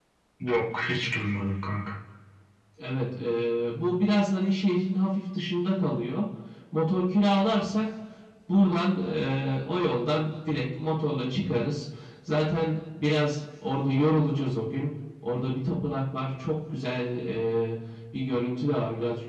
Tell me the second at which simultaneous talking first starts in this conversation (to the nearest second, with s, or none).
none